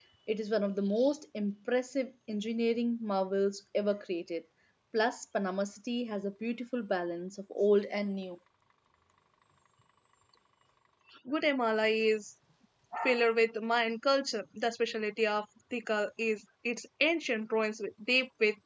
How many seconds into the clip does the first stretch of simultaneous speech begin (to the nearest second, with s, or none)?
none